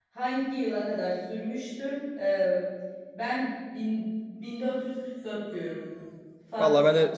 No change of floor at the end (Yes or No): No